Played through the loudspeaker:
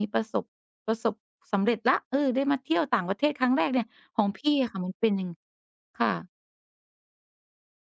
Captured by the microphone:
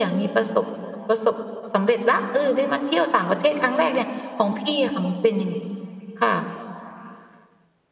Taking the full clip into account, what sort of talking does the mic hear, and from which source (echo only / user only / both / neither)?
echo only